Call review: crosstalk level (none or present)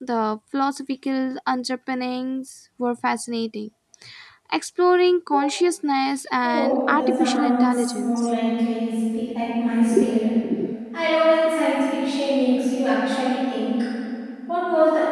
present